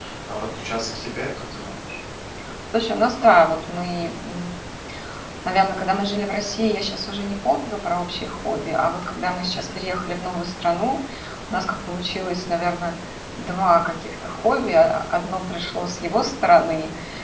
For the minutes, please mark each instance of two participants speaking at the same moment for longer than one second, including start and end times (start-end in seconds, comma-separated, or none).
none